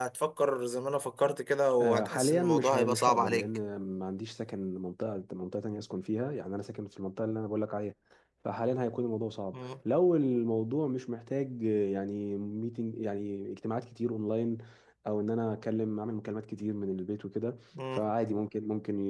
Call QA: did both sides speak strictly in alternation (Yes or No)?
No